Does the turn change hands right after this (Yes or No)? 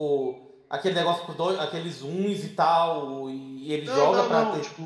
Yes